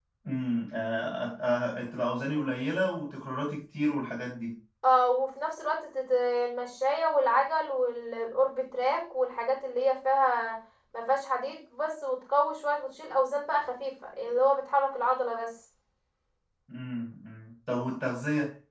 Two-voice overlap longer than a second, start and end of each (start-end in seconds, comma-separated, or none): none